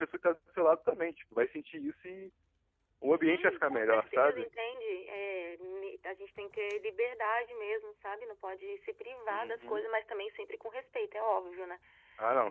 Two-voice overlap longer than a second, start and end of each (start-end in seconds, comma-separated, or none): 3.1-4.5